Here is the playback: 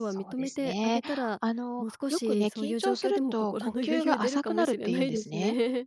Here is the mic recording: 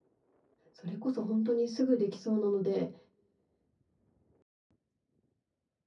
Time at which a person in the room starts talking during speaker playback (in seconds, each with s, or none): 0.7 s